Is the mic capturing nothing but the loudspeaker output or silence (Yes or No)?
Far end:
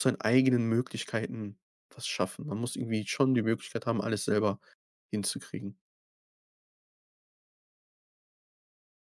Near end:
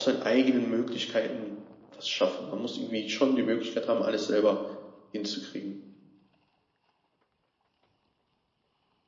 Yes